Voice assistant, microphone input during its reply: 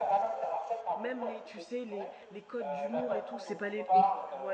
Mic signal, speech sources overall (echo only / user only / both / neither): both